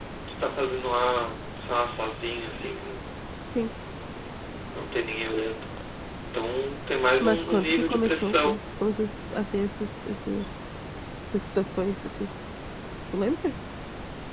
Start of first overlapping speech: 7.2 s

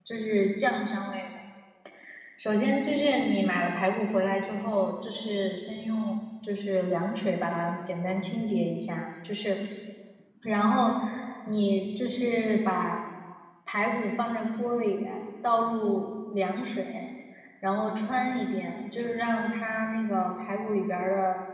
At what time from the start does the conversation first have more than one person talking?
none

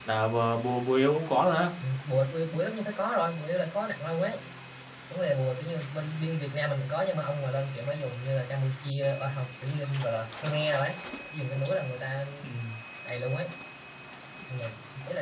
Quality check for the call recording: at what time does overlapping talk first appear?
none

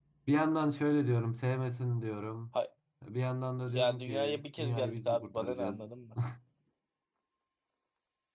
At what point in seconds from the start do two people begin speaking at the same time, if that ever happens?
3.7 s

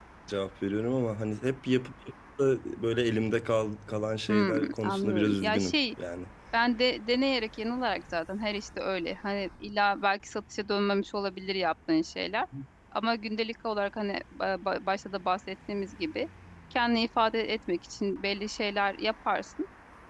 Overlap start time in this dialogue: 4.3 s

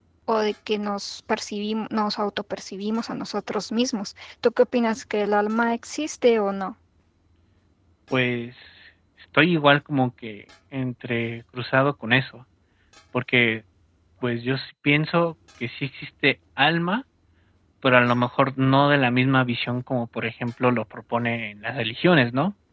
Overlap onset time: none

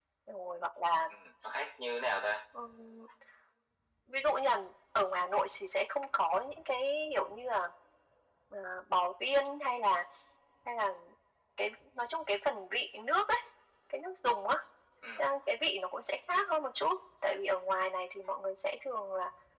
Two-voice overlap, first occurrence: none

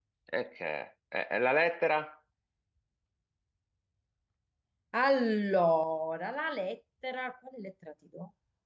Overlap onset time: none

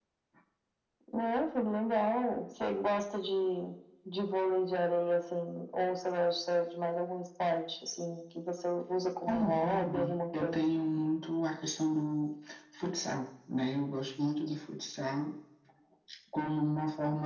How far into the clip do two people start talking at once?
9.3 s

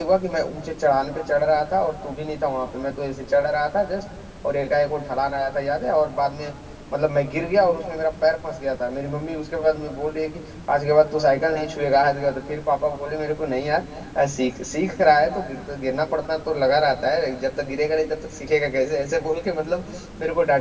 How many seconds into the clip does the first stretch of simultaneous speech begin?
none

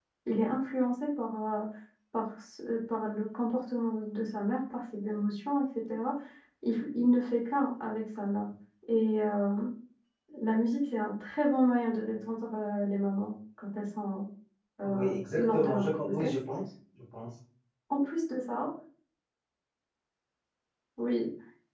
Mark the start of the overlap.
14.8 s

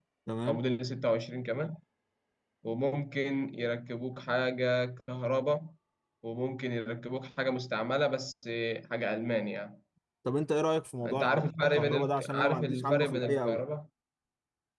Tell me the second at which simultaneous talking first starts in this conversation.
11.1 s

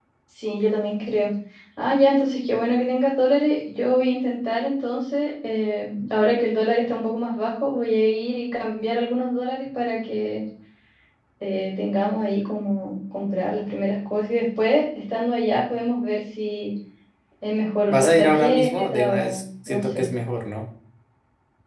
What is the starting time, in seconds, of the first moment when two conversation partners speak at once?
17.9 s

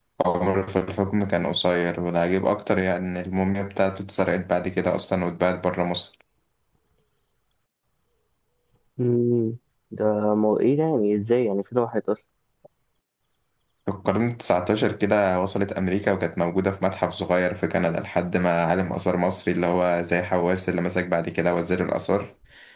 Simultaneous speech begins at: none

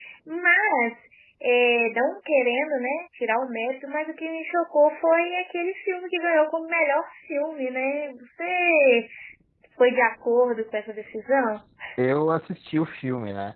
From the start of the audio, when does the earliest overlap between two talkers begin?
none

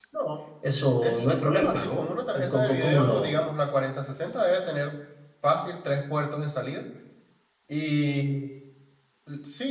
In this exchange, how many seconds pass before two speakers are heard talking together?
0.7 s

